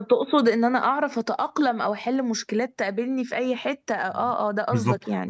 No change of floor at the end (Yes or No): No